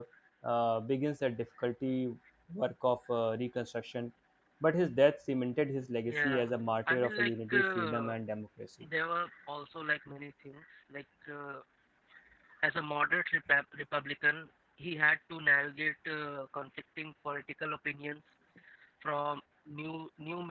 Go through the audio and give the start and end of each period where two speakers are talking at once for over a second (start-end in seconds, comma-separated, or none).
6.9-8.2